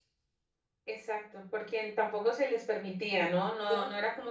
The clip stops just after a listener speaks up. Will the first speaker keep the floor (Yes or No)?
Yes